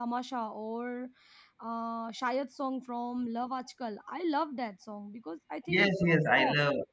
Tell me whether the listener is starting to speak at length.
Yes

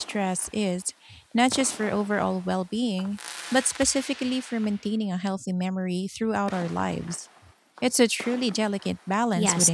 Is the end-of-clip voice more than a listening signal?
Yes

